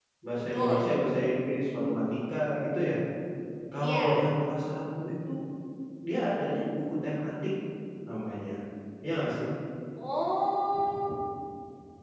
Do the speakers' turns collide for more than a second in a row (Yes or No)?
No